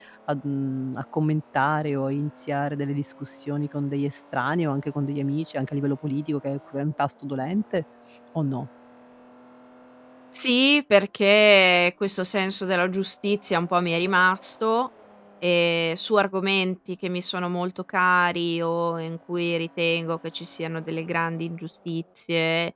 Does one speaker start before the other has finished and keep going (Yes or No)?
No